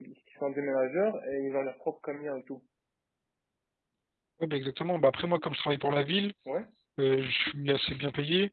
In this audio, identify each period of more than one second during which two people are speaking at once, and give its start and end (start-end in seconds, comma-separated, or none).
none